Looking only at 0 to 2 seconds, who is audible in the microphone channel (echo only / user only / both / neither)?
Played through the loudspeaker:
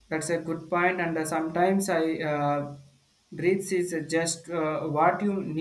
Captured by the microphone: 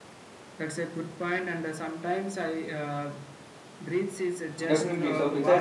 echo only